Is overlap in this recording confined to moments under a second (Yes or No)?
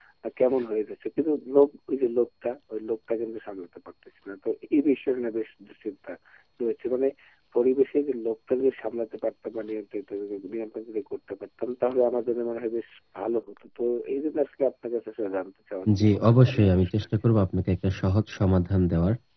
No